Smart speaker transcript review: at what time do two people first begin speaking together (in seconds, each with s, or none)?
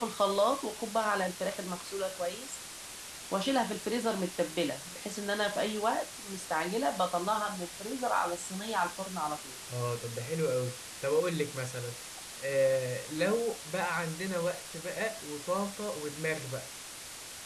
none